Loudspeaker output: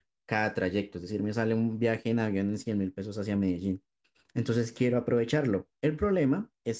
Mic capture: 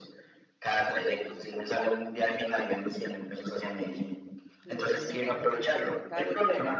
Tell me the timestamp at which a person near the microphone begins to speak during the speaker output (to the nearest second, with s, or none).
5 s